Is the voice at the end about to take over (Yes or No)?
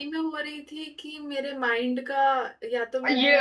Yes